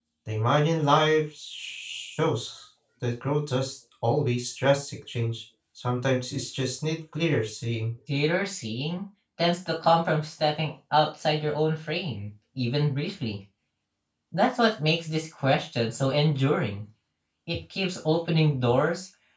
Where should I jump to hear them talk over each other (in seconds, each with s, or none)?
none